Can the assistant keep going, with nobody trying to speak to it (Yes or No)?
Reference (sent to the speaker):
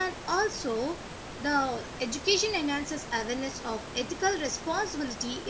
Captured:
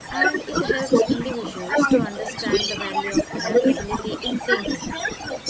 No